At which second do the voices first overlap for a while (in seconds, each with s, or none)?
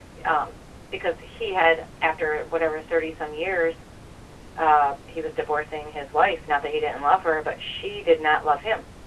none